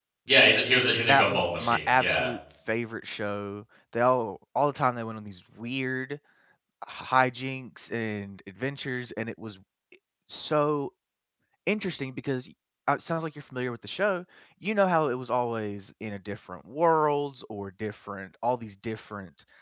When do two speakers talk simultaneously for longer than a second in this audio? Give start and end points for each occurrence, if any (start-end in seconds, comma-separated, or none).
1.1-2.3